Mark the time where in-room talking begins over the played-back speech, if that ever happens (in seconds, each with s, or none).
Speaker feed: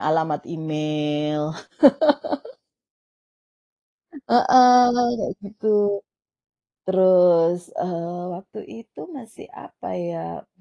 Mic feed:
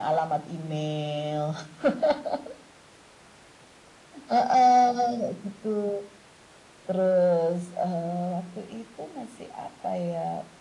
none